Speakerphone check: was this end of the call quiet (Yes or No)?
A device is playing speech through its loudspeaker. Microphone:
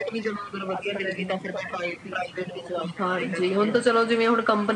No